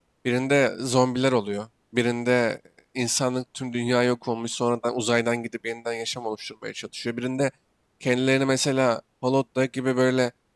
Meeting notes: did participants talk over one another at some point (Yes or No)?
No